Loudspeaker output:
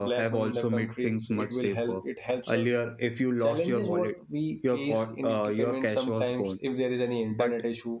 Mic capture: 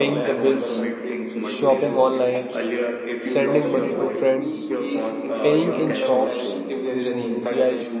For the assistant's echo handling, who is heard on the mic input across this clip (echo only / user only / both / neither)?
both